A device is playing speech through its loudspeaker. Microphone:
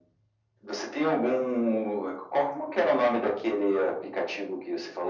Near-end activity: none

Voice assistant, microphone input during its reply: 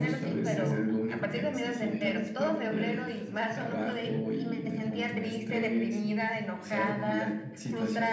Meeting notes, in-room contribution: present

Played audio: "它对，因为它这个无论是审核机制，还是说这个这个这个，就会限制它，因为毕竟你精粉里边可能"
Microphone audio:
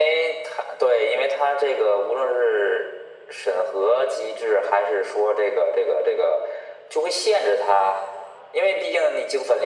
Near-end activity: none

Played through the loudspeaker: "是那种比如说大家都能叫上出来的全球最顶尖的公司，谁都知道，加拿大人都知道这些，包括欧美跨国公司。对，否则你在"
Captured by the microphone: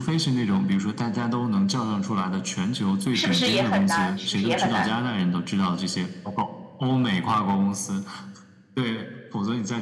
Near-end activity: present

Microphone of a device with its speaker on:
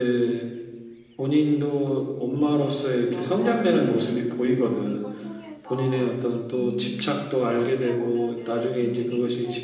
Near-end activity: present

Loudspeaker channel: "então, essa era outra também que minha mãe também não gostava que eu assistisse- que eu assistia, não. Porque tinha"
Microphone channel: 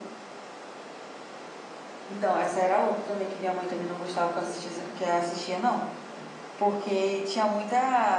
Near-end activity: none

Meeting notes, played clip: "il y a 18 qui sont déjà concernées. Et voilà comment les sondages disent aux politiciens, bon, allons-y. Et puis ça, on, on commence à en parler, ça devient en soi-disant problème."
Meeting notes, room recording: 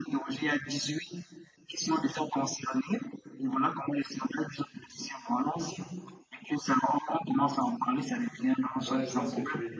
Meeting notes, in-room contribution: present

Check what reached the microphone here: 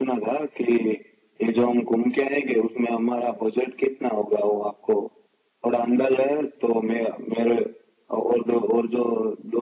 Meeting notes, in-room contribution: none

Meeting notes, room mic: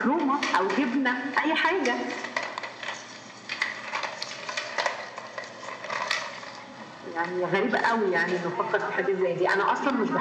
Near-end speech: present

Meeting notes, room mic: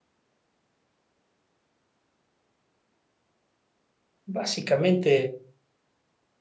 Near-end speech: present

